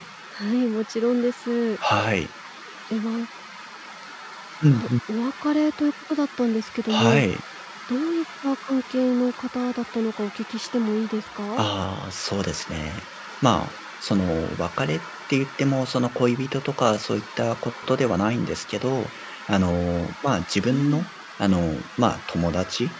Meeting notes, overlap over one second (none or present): none